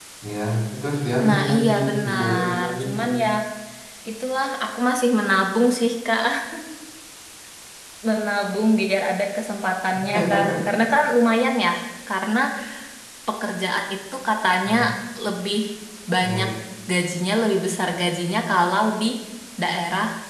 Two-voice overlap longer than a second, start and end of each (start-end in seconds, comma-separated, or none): 1.2-3.0